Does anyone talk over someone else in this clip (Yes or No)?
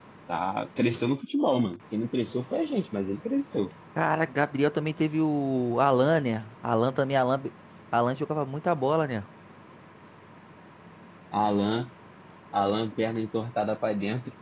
No